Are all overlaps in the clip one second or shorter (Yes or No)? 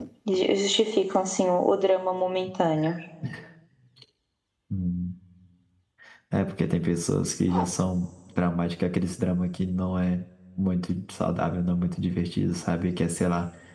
Yes